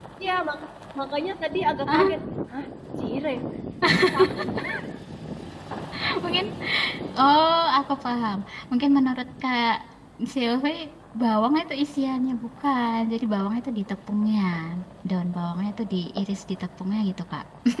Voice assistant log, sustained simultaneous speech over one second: none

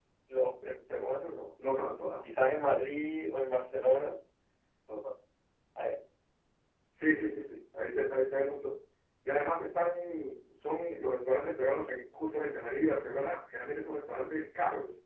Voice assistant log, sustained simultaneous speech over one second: none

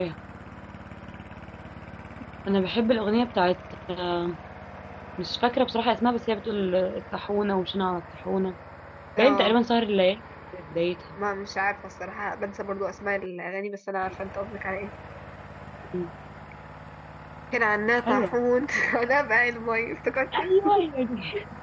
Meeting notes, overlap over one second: none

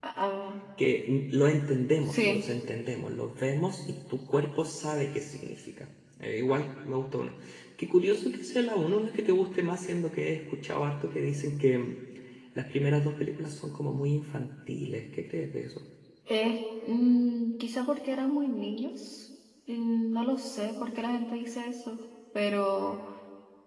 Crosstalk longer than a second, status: none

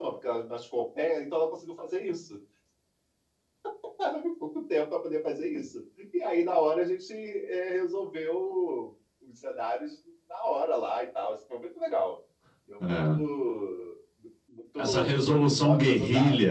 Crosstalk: present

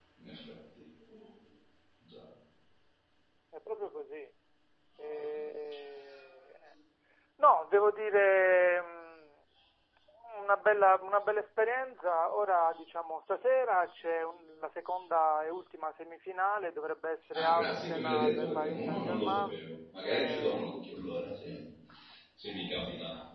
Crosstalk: present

